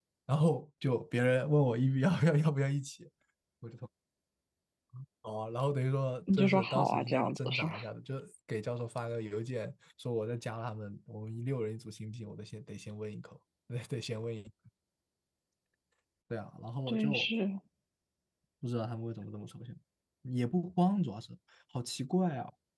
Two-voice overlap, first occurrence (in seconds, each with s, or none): 6.3 s